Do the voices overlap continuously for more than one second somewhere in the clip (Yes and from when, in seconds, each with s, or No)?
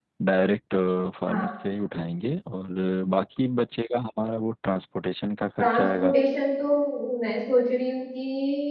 No